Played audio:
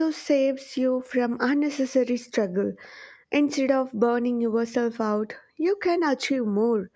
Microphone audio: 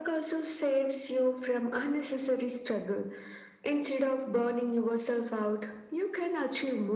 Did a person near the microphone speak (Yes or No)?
No